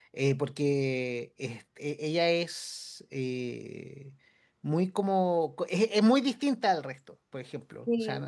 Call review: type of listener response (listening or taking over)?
listening